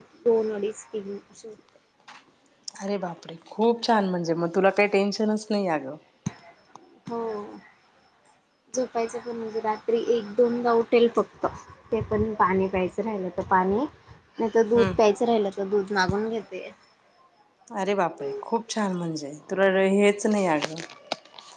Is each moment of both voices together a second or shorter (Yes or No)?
Yes